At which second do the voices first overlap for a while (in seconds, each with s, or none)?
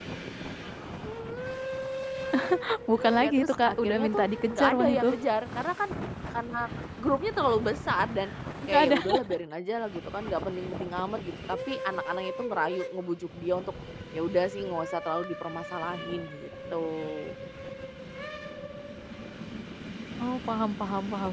3.2 s